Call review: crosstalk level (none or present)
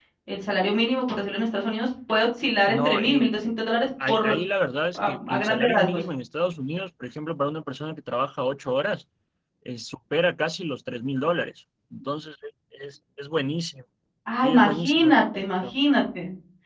present